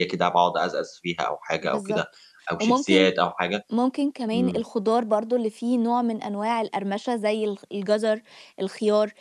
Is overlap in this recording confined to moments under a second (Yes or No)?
Yes